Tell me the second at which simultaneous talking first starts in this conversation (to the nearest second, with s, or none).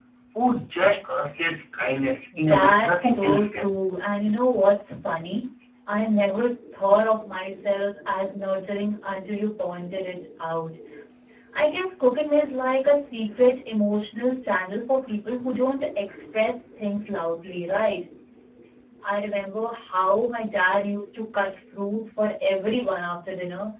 2 s